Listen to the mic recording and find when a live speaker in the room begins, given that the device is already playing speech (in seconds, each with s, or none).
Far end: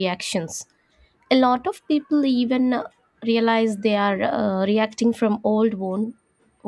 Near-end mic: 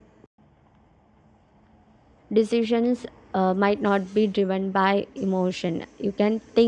2.3 s